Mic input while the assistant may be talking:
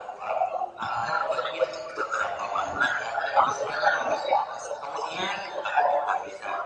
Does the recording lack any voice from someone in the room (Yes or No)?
Yes